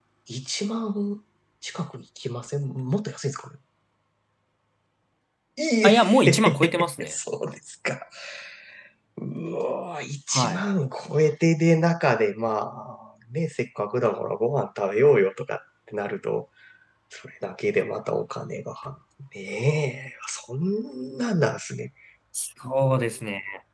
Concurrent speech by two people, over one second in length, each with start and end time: 5.8-7.1

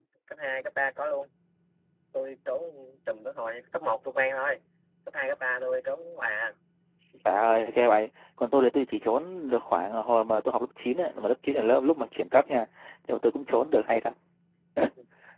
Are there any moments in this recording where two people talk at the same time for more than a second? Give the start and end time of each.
none

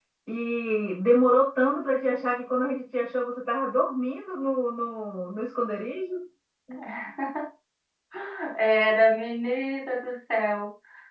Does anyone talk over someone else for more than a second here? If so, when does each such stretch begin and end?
none

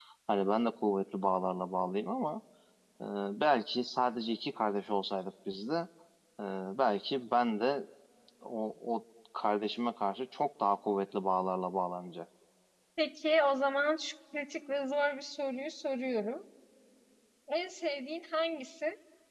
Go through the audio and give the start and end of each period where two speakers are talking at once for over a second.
none

